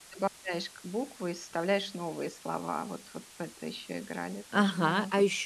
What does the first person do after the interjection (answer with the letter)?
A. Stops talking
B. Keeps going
A